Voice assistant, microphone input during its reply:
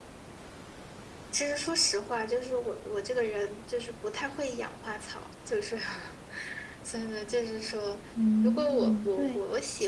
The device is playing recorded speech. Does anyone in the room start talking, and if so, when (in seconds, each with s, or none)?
8.1 s